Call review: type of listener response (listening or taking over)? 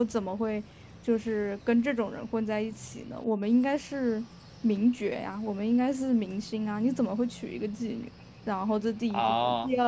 listening